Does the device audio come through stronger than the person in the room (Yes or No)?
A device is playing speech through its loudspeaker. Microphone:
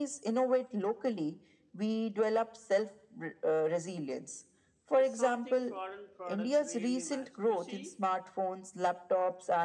Yes